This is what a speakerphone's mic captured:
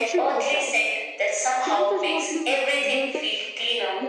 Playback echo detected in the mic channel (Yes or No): Yes